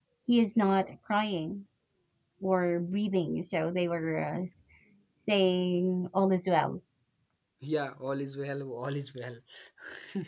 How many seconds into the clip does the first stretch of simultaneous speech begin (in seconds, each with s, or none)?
none